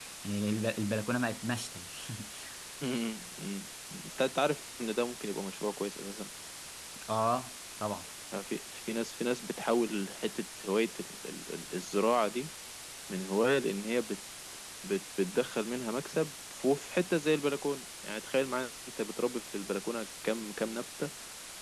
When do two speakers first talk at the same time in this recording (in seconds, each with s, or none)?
none